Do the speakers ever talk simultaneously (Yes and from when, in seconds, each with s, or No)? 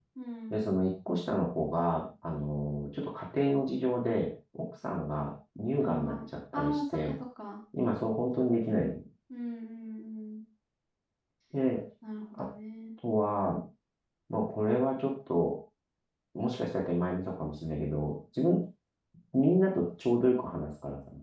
Yes, from 5.8 s